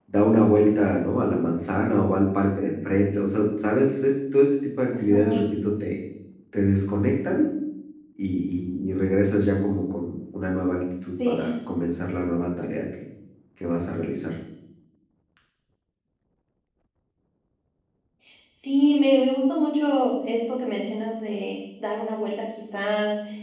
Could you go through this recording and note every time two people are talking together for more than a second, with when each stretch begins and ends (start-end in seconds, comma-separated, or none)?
none